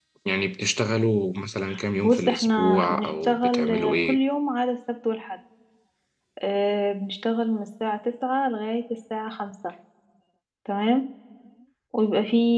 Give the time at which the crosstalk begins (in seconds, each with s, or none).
2.0 s